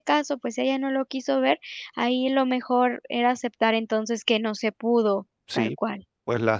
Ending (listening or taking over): taking over